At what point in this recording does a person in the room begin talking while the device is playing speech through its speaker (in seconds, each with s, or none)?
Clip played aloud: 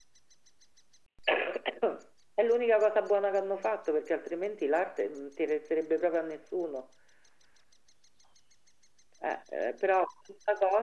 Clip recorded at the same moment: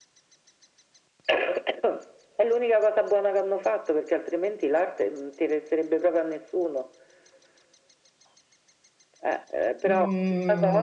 9.9 s